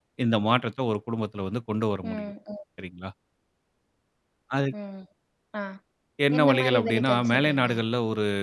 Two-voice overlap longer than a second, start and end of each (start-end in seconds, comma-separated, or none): 6.4-7.7